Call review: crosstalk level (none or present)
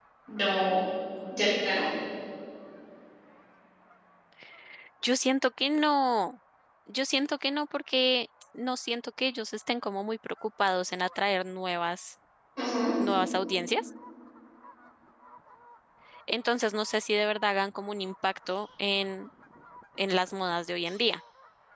none